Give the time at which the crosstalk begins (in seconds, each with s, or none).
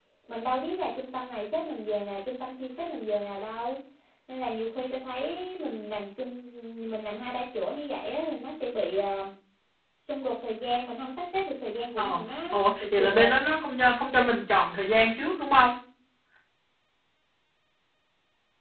12.0 s